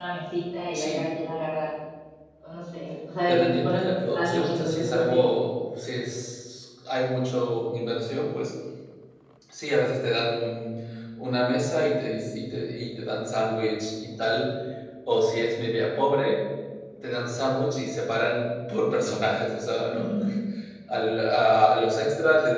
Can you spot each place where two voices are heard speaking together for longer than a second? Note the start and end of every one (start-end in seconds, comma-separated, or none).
3.3-5.3